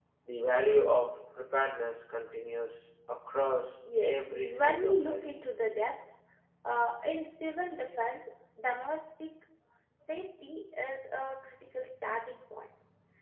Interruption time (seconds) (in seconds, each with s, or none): 3.8 s